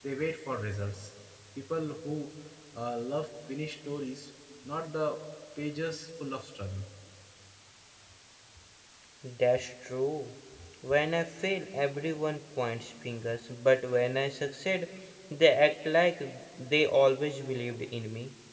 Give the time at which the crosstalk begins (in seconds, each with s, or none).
none